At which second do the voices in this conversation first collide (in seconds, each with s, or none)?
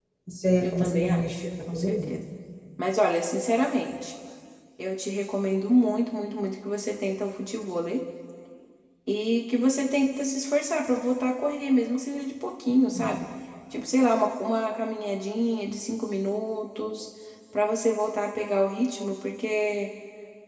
0.6 s